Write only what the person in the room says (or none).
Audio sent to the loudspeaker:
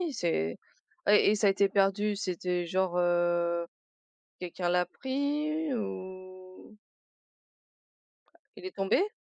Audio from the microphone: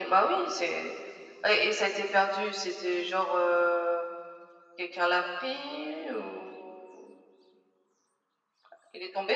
none